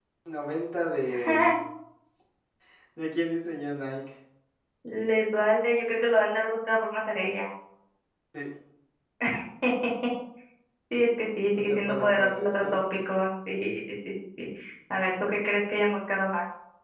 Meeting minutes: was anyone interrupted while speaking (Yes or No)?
Yes